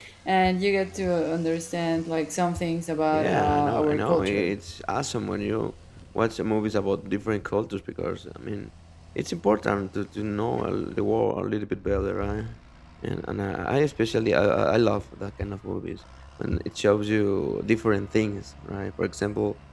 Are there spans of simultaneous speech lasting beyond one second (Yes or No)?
Yes